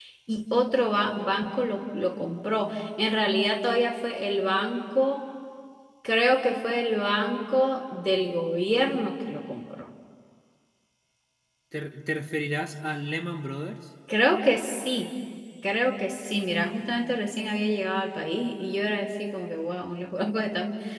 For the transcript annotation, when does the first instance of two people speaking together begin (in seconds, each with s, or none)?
none